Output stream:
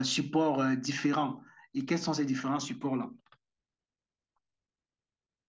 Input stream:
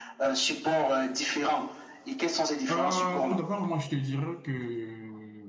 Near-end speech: present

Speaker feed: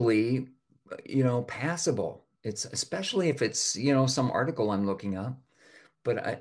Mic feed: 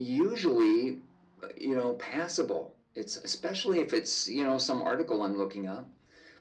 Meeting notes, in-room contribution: none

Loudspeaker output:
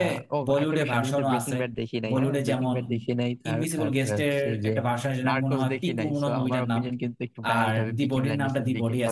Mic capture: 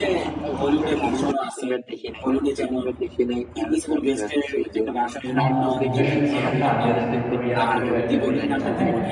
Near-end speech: present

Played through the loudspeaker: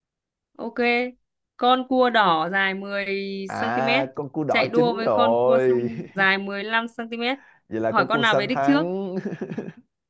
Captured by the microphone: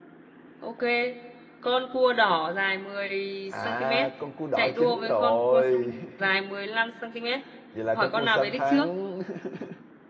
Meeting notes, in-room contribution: none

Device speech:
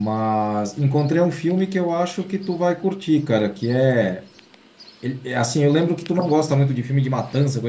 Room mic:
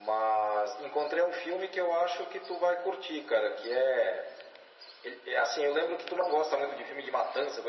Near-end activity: none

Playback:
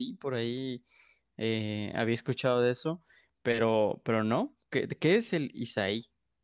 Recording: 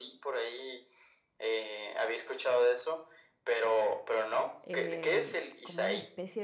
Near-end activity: present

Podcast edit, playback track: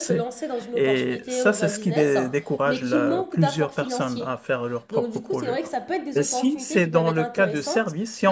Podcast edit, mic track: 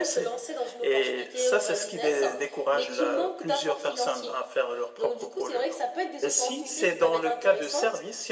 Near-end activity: none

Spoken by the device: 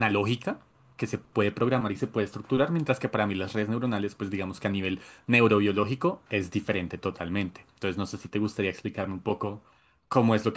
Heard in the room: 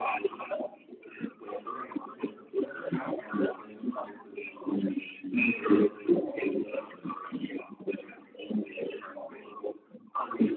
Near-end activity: none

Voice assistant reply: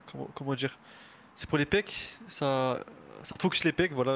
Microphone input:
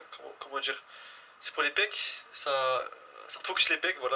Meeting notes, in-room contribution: none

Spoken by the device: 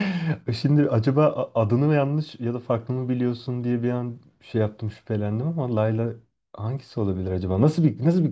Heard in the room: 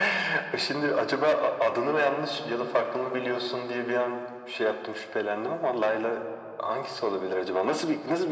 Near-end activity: none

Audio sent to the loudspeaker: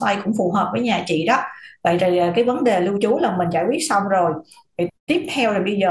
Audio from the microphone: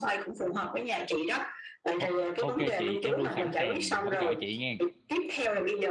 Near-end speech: present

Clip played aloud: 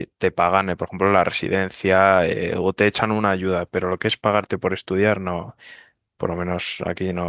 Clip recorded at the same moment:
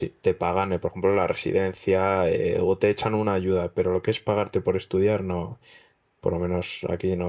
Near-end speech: none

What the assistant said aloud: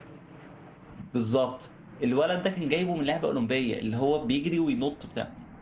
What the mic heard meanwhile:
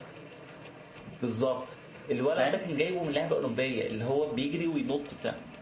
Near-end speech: present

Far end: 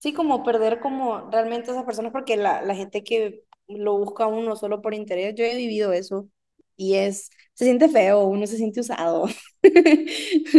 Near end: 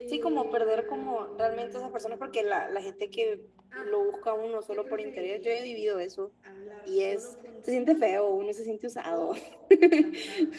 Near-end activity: present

